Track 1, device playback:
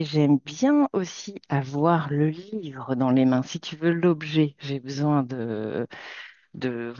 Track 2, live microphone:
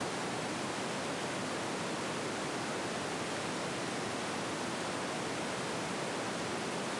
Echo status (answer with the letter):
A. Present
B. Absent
B